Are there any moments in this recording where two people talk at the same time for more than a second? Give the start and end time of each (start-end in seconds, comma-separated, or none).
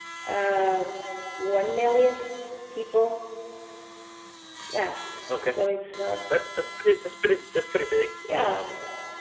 none